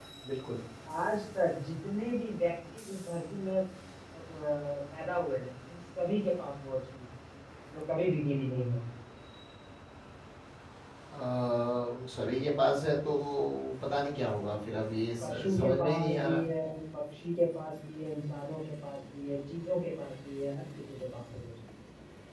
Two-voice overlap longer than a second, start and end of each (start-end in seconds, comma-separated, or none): 15.2-16.4